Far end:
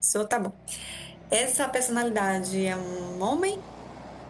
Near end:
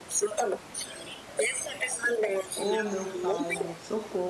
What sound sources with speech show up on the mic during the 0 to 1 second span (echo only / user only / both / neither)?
echo only